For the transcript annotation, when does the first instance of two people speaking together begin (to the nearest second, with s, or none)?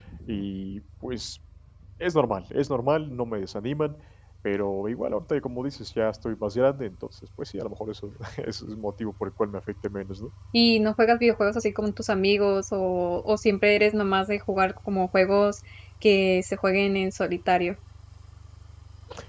none